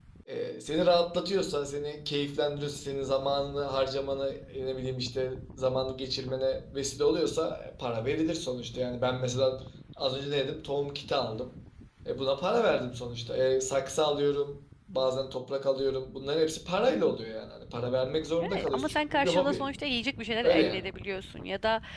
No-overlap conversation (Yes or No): No